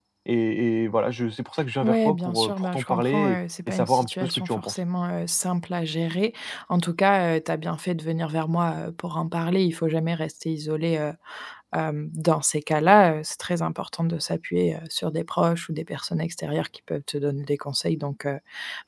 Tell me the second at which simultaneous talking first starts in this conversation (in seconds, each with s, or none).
1.8 s